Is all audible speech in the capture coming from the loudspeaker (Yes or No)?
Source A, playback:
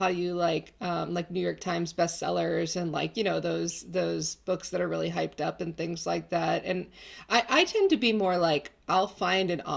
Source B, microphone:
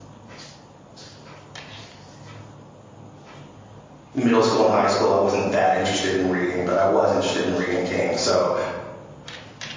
No